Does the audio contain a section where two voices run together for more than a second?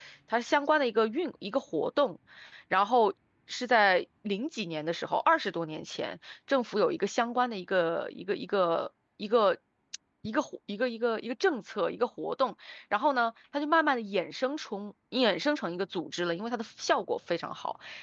No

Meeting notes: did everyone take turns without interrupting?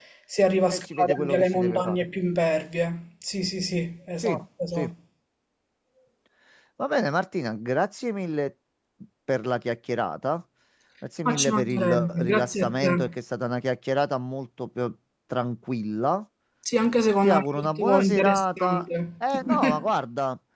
No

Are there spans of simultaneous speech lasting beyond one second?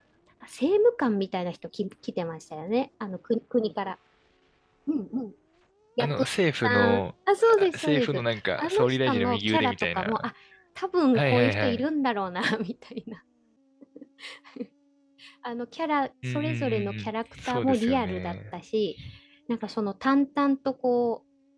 Yes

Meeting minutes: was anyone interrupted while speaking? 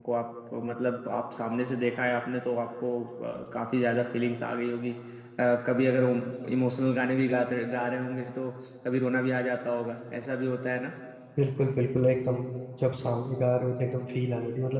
No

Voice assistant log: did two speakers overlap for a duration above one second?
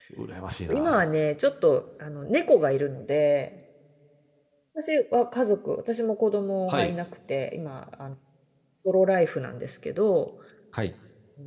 No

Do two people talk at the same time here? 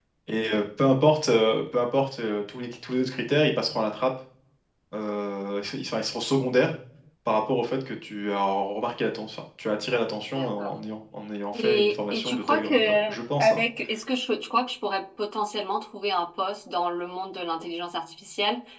Yes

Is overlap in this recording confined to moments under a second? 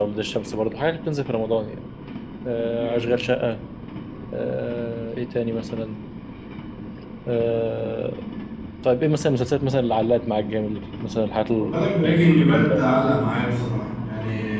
No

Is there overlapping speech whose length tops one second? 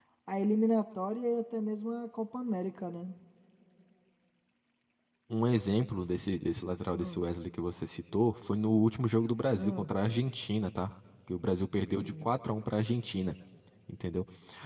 No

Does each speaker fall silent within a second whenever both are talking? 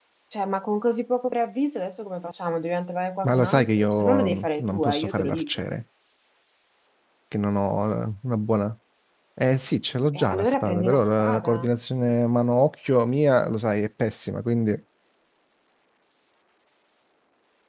No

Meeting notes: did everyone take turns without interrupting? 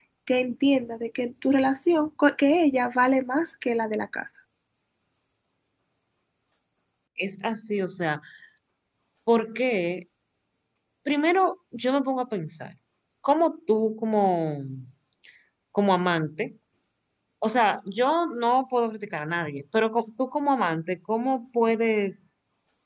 Yes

